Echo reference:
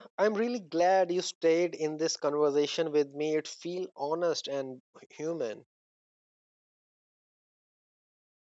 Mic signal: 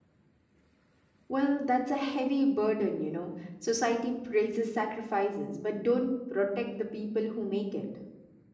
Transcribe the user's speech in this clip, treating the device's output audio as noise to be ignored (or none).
Well, that's a heavy burden, you know. Society praises sacrifices, but don't protect the people who make it.